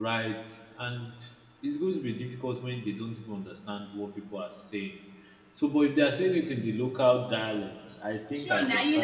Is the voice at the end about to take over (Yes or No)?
Yes